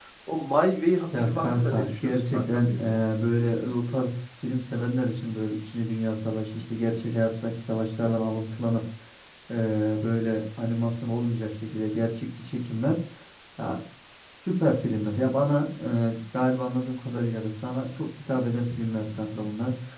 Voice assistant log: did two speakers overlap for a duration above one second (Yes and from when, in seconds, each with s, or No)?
Yes, from 1.2 s